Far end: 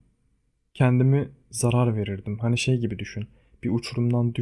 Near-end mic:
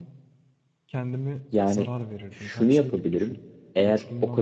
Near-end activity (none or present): present